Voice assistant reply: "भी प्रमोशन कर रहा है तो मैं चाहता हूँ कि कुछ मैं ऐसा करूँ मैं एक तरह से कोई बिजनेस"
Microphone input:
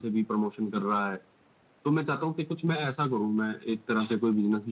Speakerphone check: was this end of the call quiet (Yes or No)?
Yes